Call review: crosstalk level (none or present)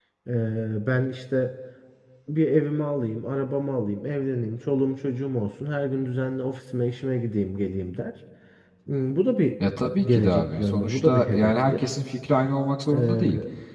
present